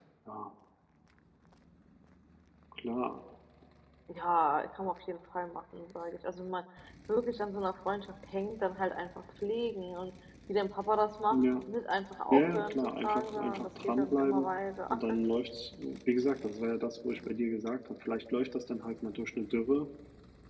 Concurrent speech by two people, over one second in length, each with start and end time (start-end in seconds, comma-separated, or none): 12.3-14.5